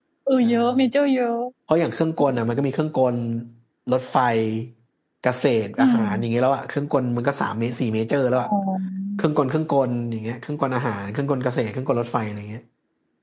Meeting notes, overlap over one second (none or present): none